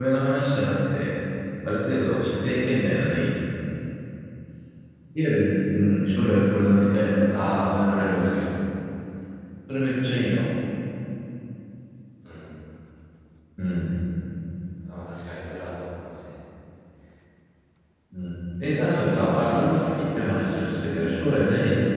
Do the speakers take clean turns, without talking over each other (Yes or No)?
No